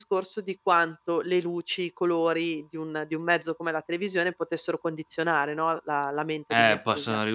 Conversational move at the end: taking over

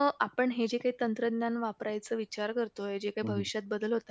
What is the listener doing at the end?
listening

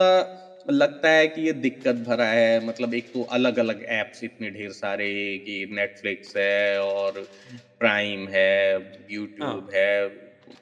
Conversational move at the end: listening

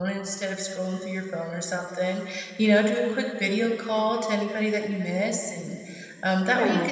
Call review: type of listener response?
listening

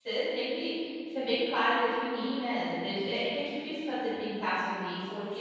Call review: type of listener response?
listening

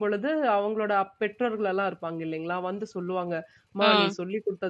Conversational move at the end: listening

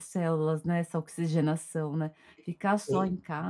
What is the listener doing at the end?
listening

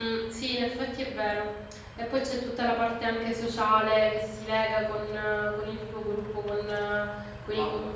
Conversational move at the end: taking over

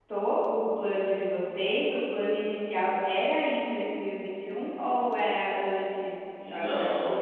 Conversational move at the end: taking over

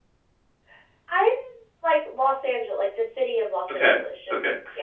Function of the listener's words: taking over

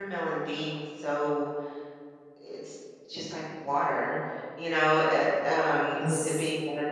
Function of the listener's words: listening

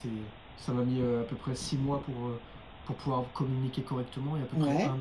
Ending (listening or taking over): listening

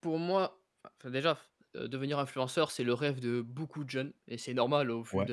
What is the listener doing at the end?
listening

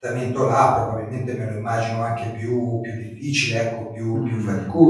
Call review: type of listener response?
taking over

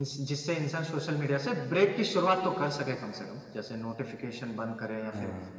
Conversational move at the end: listening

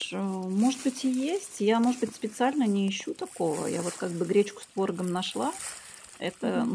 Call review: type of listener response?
listening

